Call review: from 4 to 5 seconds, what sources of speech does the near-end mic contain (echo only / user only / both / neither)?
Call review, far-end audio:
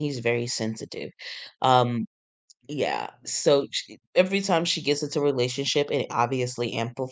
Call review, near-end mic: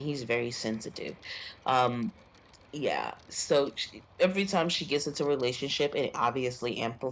echo only